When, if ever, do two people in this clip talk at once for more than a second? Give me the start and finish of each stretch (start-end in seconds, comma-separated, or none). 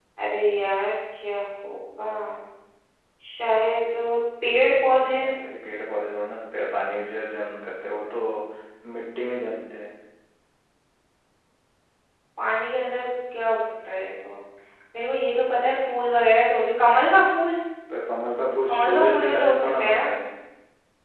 18.7-20.1